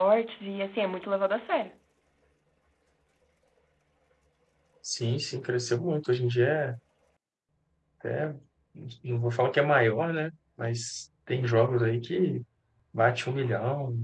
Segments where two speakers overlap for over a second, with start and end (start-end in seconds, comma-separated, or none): none